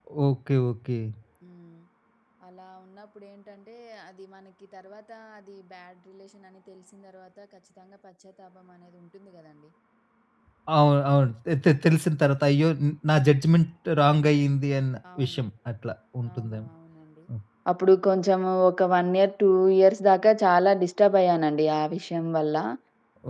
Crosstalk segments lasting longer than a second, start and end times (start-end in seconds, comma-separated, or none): none